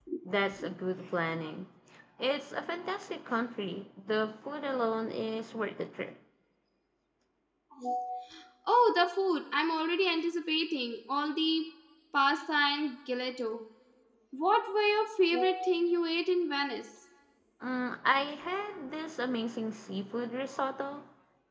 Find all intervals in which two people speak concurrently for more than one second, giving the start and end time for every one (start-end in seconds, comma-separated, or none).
none